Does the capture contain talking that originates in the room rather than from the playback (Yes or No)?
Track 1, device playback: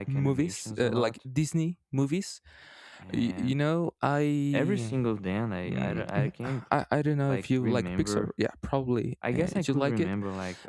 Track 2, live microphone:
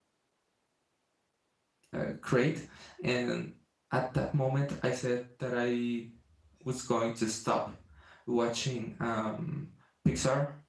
Yes